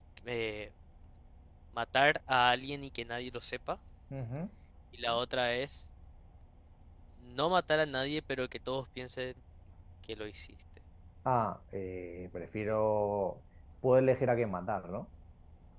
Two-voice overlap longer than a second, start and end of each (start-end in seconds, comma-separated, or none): none